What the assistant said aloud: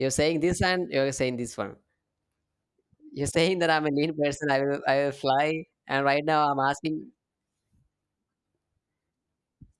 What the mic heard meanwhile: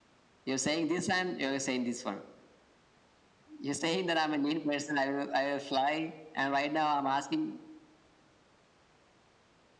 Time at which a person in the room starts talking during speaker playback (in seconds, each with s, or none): none